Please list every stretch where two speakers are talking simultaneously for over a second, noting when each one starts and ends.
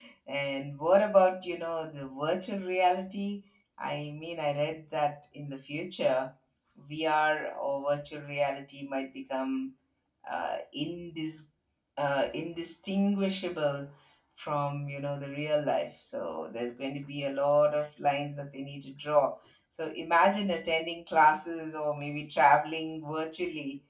none

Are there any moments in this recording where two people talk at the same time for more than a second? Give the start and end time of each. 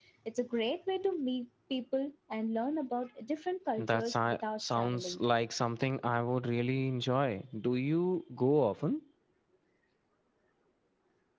3.8-5.2

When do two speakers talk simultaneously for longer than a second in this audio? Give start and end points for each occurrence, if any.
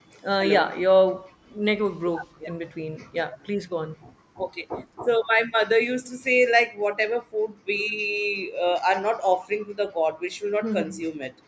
none

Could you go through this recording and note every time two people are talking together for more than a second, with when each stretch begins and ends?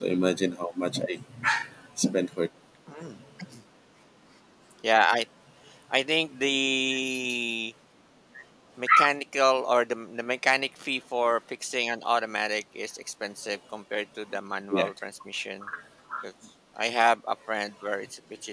none

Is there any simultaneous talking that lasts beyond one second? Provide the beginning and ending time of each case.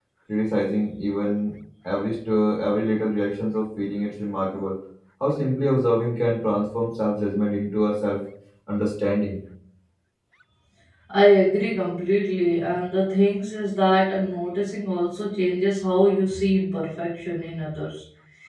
none

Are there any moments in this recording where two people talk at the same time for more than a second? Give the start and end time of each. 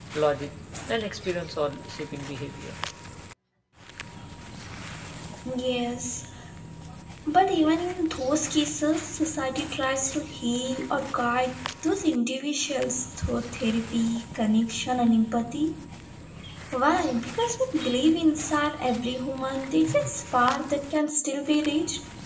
none

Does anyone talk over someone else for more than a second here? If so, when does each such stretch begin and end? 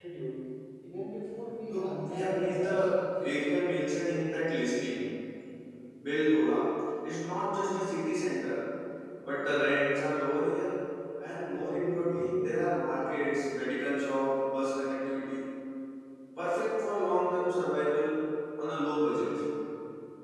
1.7-2.9

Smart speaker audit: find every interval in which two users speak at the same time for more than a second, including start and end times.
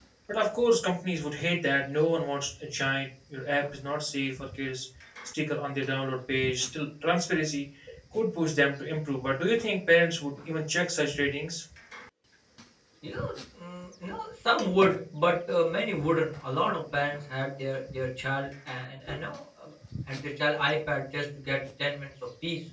none

